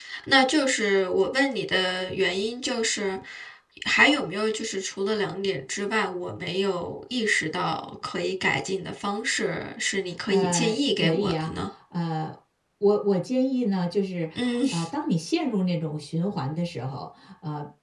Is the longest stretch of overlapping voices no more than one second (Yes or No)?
No